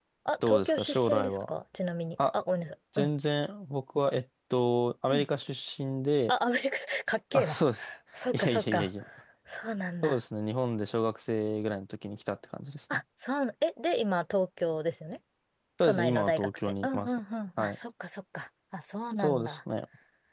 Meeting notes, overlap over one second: present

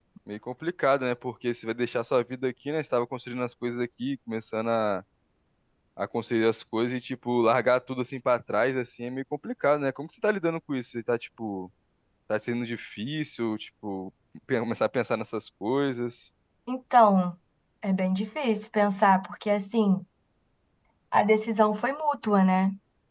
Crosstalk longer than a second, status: none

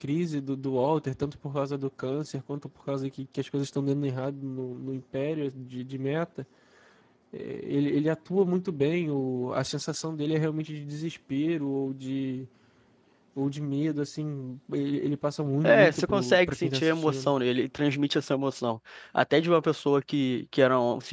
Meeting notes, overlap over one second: present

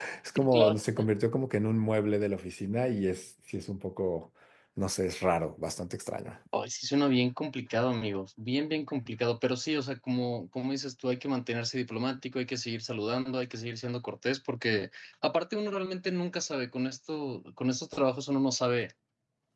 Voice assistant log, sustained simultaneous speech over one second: none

